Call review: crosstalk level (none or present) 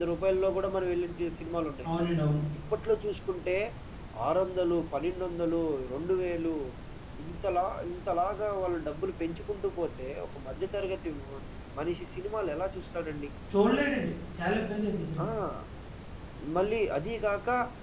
none